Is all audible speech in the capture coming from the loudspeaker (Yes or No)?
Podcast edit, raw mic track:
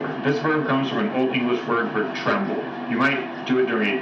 Yes